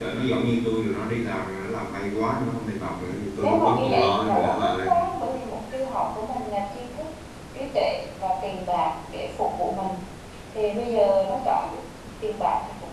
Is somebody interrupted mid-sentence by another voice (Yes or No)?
Yes